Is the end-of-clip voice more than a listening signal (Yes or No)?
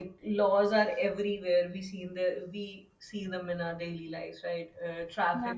Yes